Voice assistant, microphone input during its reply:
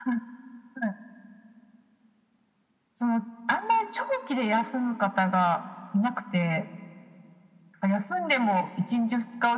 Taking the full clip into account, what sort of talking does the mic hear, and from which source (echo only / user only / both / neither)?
echo only